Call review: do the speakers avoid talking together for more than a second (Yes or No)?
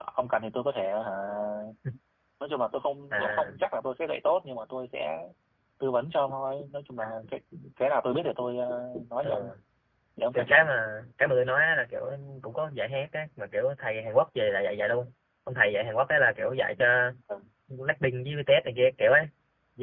Yes